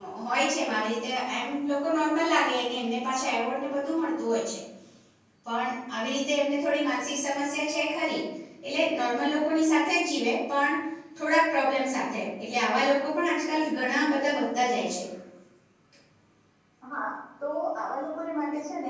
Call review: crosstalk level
none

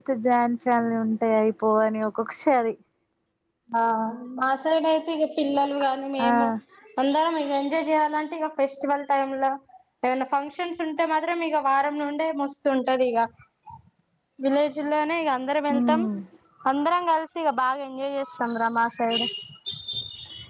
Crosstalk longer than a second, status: none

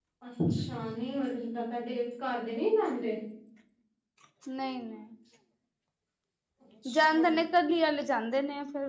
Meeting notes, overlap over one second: none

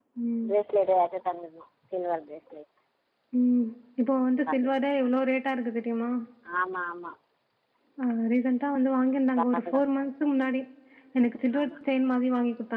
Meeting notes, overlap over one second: none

